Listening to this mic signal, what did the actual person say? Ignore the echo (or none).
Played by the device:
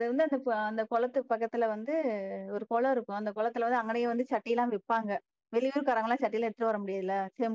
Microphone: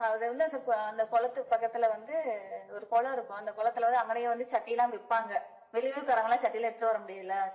none